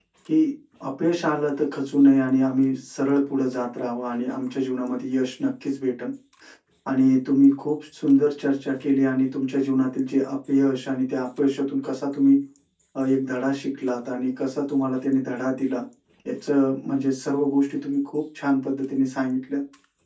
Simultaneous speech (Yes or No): No